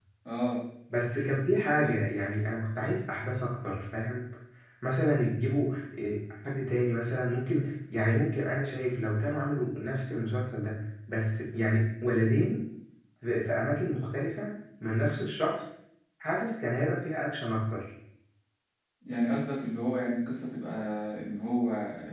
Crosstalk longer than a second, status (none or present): none